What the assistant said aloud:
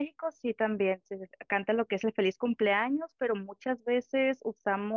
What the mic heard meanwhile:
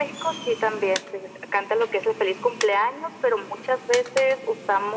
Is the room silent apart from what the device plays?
Yes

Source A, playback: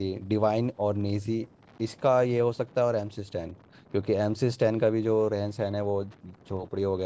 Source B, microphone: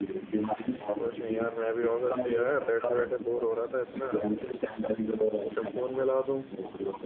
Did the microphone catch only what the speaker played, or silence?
No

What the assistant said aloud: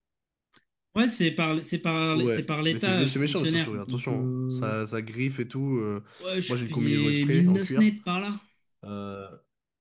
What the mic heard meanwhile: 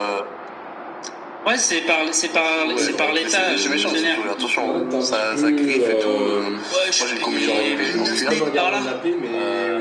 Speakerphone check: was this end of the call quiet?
No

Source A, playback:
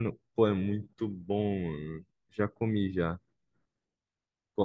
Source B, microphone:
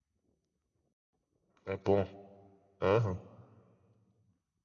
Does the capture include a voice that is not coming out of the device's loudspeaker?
Yes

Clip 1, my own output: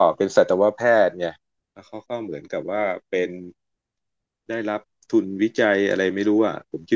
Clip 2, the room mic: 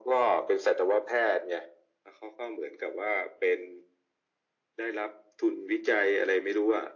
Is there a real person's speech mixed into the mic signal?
No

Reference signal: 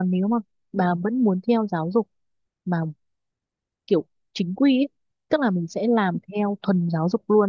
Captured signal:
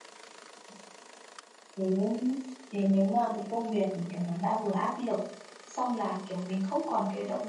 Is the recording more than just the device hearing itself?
Yes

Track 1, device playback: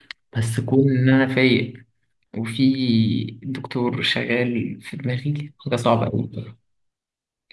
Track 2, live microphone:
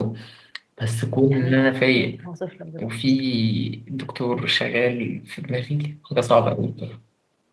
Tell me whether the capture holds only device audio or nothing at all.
No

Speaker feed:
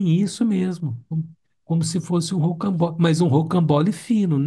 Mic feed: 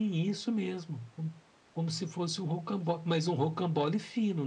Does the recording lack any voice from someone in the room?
Yes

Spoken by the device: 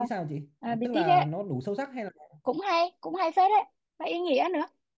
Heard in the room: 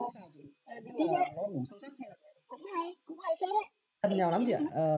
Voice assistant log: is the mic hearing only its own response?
No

